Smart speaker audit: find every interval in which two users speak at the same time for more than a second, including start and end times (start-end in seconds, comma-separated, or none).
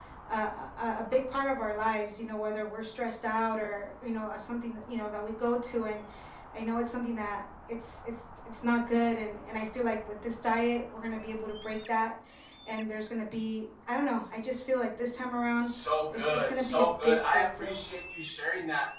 16.1-17.8